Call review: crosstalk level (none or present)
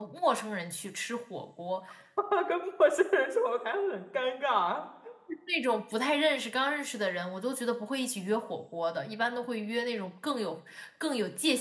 none